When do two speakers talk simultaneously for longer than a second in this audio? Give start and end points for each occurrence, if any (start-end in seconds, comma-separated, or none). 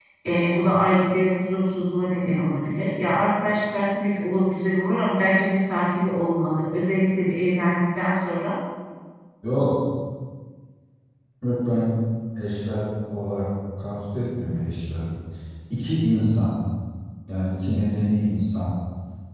none